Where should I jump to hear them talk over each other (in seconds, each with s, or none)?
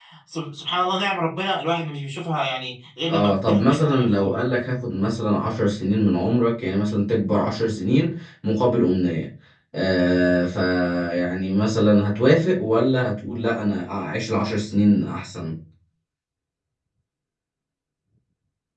3.1 s